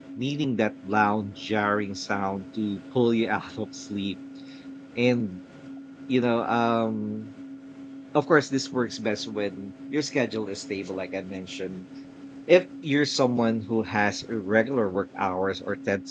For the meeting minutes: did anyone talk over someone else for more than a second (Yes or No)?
No